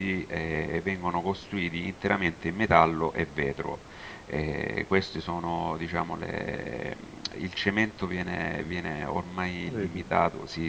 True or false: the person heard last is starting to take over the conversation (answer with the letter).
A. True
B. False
B